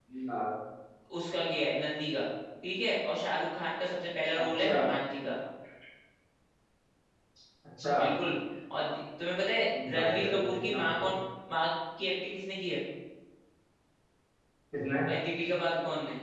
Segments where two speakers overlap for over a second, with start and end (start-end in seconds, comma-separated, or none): 9.9-11.2